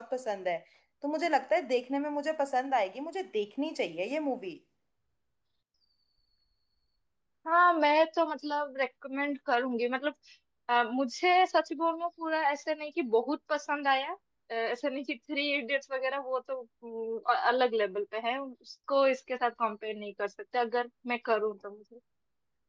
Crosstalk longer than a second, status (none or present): none